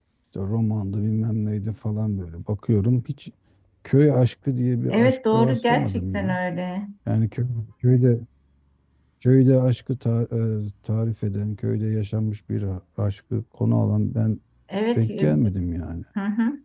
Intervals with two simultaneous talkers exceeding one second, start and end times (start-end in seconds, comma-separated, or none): 4.9-6.4